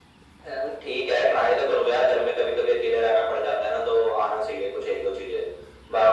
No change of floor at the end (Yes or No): No